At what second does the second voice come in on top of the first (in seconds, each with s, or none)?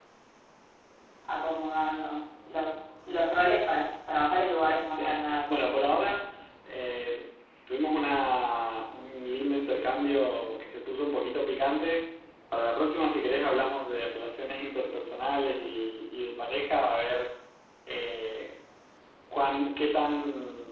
4.9 s